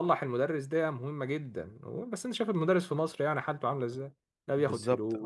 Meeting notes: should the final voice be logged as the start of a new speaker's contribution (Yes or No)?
Yes